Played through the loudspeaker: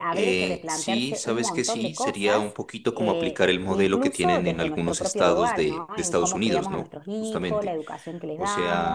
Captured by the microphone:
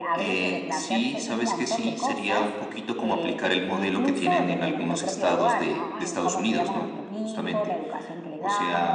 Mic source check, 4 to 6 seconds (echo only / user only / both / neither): echo only